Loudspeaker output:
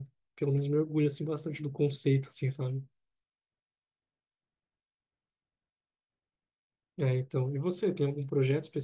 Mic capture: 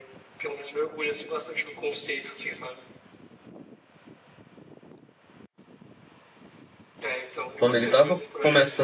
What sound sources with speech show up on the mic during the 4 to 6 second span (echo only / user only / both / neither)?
neither